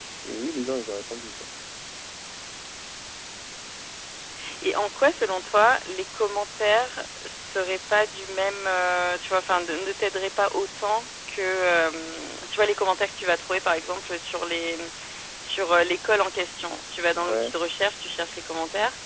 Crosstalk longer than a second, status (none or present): none